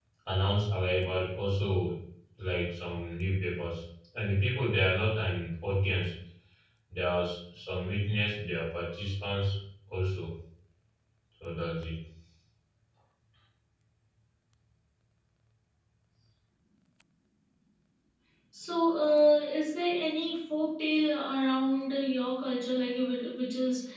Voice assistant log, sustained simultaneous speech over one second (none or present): none